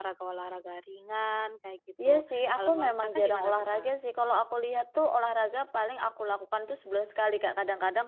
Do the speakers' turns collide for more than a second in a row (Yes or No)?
Yes